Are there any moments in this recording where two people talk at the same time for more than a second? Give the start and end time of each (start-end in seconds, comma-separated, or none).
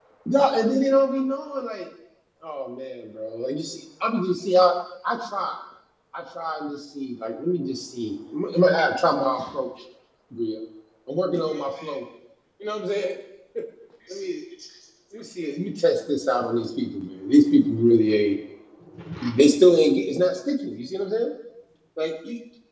none